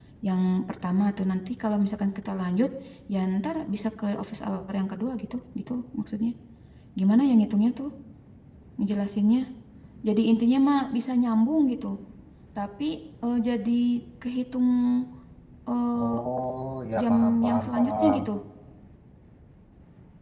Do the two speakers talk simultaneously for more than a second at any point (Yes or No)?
Yes